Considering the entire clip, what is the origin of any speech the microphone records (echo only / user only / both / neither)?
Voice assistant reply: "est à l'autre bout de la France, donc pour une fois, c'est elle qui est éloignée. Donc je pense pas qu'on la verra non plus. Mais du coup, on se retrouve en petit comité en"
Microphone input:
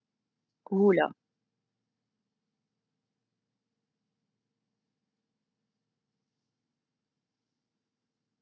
user only